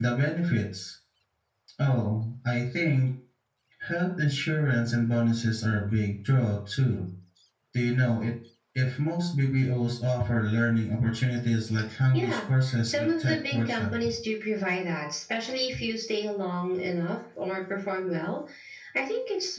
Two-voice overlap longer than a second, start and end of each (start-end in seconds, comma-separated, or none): 12.8-14.1